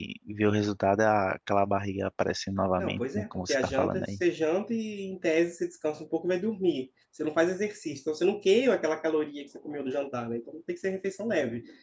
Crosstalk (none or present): present